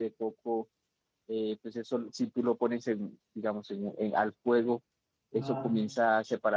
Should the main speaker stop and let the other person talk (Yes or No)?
No